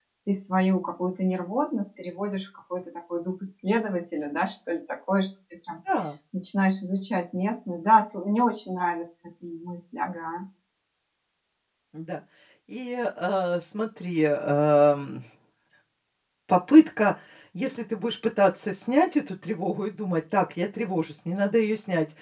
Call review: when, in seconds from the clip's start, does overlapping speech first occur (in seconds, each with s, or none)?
none